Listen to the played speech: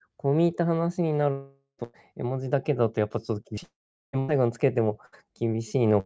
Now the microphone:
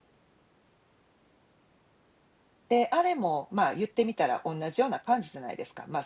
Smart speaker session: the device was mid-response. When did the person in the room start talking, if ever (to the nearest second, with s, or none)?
3 s